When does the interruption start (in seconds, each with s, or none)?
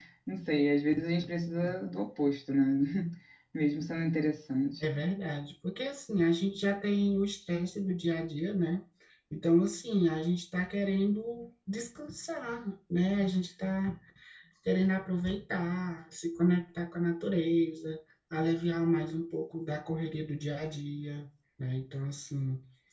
none